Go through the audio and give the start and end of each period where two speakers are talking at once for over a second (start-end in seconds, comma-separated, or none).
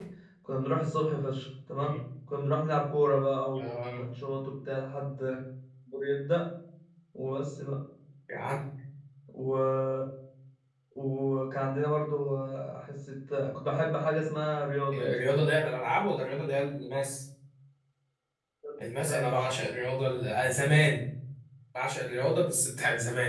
none